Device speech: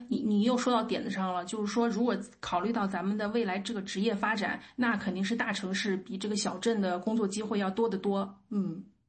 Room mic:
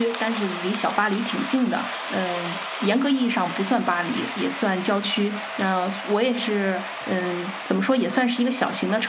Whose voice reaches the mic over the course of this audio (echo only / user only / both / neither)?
user only